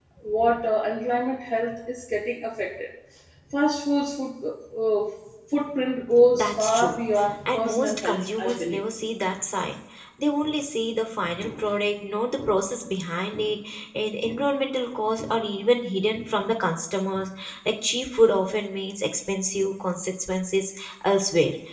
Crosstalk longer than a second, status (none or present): present